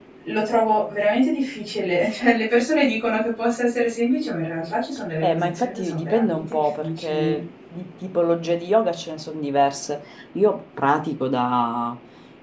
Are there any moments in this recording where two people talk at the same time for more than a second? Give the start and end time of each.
5.2-7.4

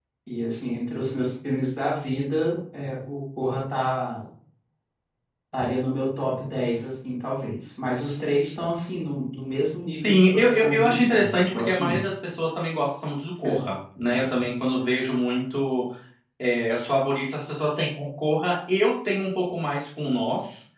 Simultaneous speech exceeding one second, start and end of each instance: 10.0-12.0

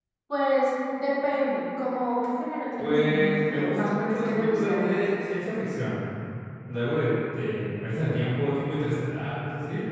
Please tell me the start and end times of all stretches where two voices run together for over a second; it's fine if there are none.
2.8-5.0

